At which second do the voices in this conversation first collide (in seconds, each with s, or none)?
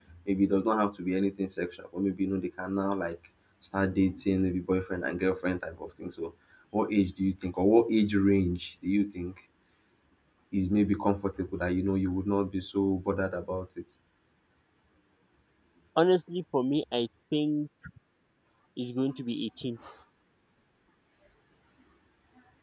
none